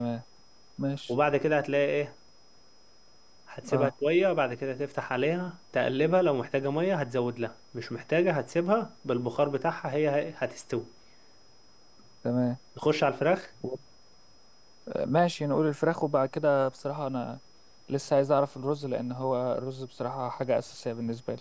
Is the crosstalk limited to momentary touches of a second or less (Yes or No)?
Yes